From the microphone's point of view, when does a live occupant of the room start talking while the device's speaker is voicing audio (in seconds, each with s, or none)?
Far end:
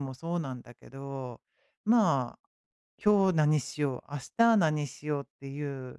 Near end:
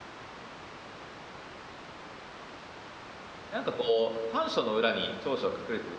3.5 s